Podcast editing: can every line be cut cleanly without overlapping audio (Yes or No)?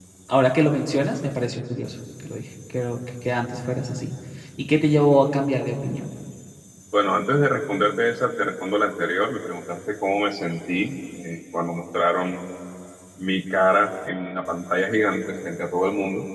Yes